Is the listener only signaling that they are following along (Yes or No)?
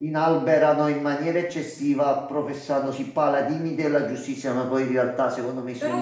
No